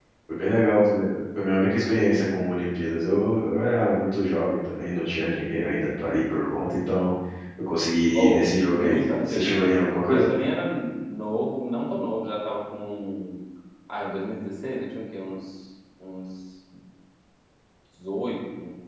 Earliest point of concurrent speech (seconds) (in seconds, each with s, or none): 8.1 s